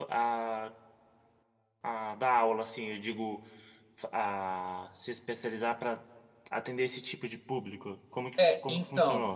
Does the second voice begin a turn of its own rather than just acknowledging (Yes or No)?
Yes